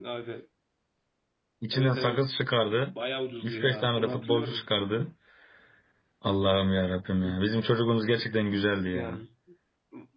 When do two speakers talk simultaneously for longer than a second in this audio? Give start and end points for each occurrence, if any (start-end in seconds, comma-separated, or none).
3.4-4.7